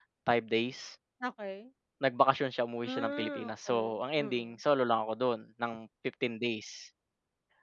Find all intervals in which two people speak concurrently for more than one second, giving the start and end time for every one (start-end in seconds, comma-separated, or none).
2.8-4.4